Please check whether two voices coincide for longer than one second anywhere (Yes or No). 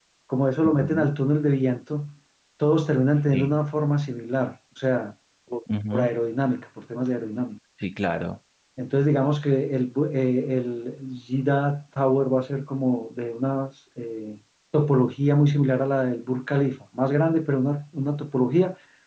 No